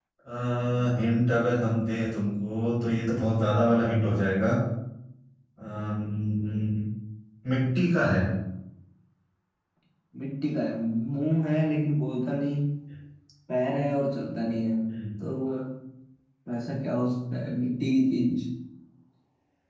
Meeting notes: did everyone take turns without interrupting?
Yes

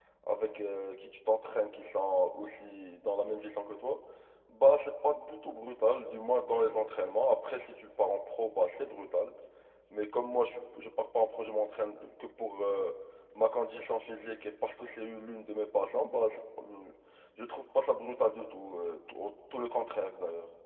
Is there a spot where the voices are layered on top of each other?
No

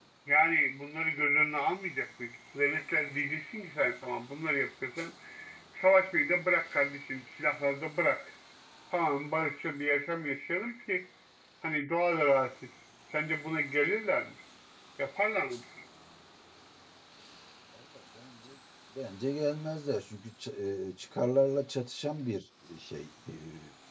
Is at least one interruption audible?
No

